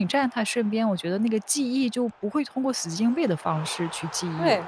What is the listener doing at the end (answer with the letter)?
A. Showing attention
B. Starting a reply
B